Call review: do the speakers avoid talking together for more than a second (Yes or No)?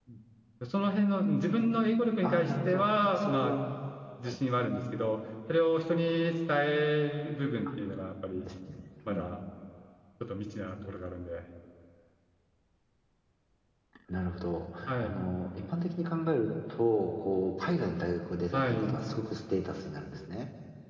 No